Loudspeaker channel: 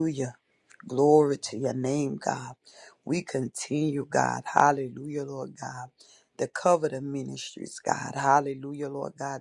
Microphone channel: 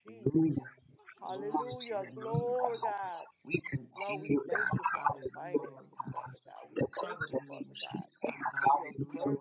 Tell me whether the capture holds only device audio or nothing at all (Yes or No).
No